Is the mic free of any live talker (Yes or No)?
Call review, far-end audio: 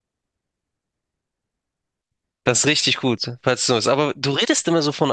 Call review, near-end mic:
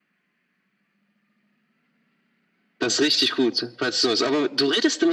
Yes